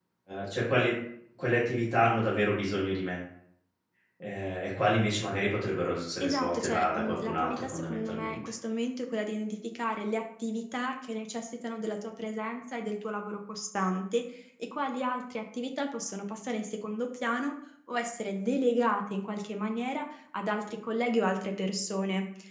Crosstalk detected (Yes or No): Yes